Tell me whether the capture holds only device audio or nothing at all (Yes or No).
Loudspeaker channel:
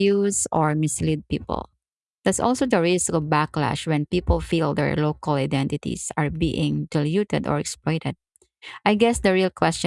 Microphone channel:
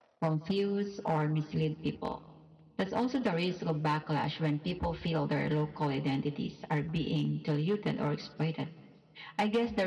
Yes